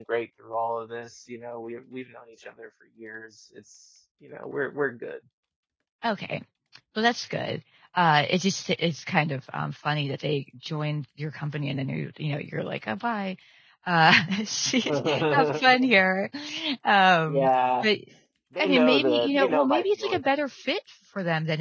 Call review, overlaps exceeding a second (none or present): present